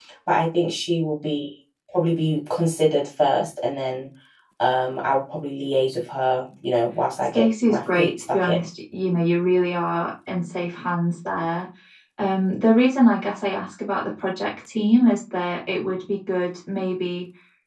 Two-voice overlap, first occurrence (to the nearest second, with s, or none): 7 s